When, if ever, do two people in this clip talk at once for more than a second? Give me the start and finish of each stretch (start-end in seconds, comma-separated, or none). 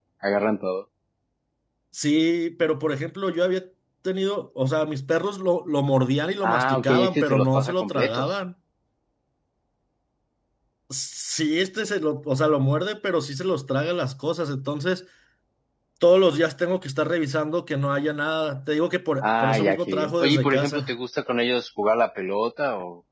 6.4-8.3, 19.2-20.9